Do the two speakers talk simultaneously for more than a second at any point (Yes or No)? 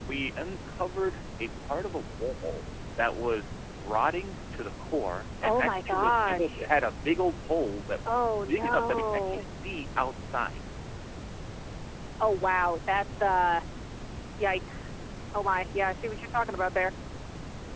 Yes